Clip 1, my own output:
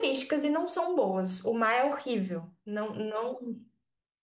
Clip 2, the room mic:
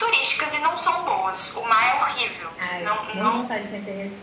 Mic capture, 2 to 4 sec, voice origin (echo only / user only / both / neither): both